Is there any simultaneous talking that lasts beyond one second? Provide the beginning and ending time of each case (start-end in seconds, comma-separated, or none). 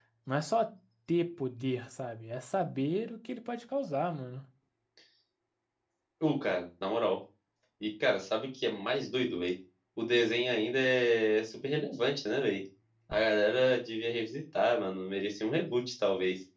none